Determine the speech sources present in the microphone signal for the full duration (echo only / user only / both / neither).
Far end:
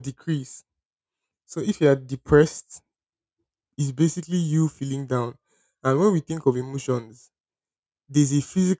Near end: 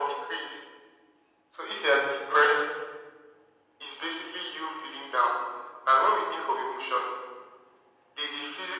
echo only